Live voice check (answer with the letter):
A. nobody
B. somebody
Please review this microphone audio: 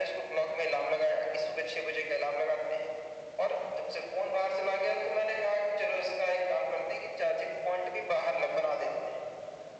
A